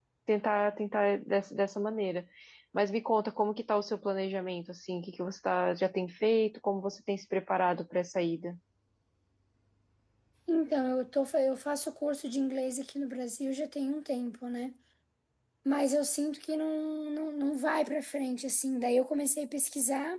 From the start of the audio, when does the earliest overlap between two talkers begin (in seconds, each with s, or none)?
none